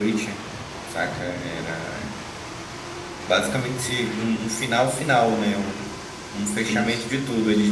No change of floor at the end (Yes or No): Yes